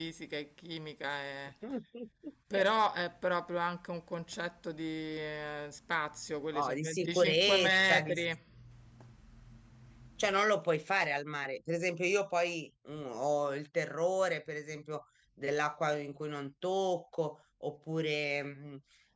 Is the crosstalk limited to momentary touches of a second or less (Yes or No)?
No